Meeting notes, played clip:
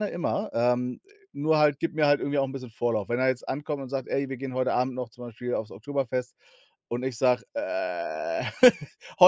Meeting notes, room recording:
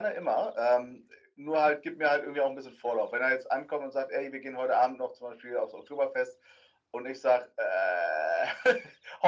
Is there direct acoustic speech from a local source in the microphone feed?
No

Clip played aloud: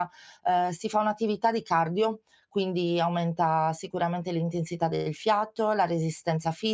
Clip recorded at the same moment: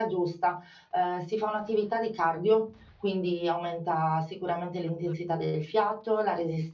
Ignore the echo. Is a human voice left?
No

